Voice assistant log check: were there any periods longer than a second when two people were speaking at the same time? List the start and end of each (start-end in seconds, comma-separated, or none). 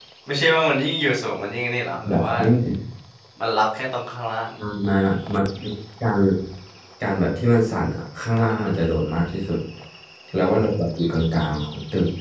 none